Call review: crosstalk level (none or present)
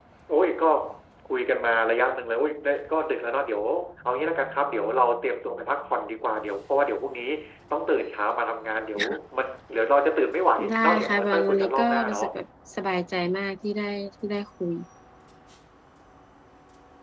present